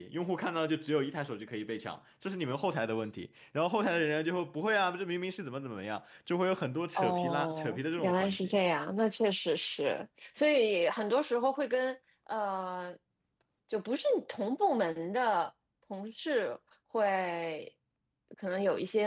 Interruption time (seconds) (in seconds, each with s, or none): 7.0 s